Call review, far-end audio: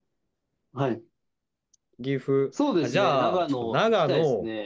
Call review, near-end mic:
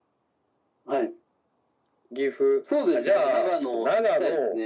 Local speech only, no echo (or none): none